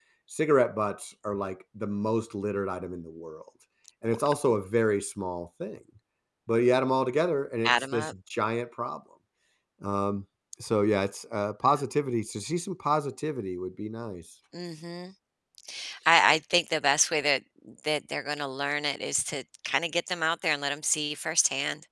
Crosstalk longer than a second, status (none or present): none